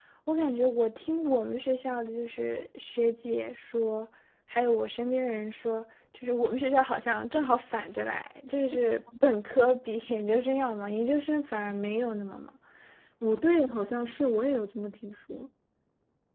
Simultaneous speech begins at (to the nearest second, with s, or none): none